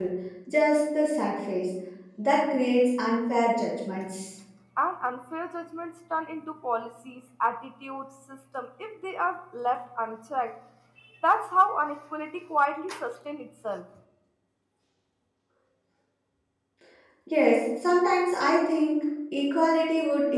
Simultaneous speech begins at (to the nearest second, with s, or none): none